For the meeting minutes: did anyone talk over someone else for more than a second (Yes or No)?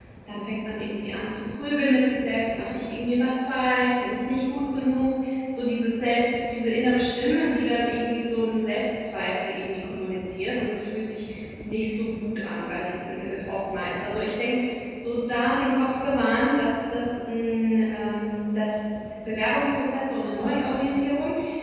No